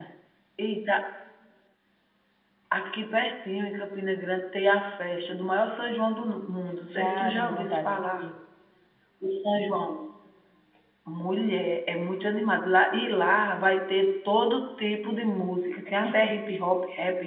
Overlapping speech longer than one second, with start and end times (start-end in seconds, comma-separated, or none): 6.9-8.2